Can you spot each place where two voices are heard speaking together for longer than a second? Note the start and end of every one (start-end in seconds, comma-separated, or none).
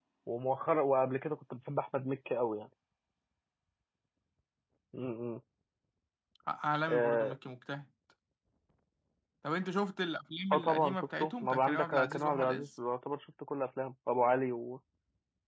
10.5-12.7